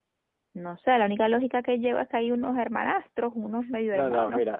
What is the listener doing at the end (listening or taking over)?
taking over